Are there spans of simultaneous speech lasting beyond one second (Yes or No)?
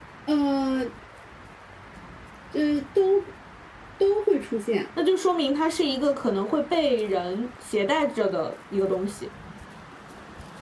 No